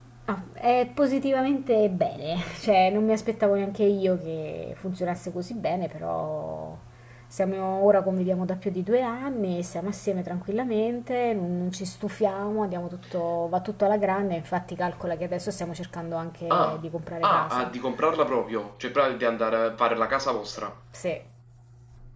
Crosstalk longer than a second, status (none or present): none